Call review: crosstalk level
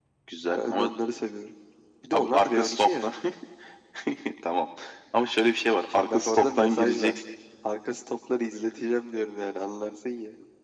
present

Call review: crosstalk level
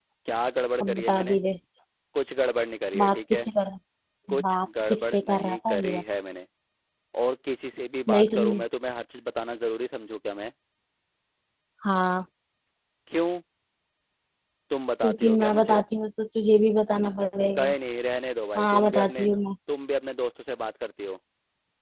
present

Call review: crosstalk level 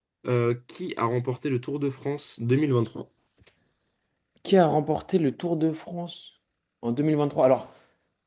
none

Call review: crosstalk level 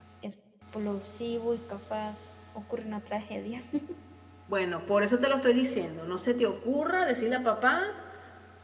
none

